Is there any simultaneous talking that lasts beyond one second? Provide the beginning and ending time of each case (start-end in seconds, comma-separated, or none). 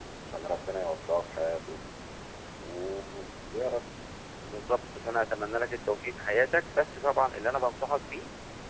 none